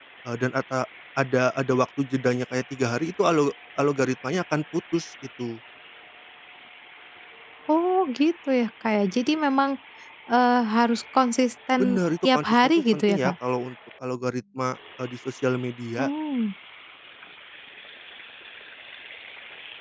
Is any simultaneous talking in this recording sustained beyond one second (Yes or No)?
Yes